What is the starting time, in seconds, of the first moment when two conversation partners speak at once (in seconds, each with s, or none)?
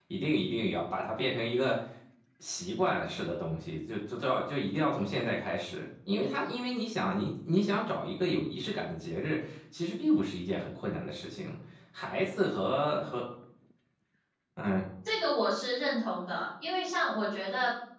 none